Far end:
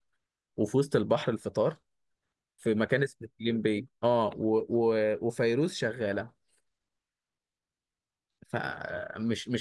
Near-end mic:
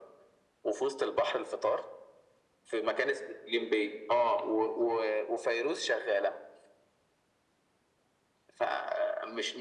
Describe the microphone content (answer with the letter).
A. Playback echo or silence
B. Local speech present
A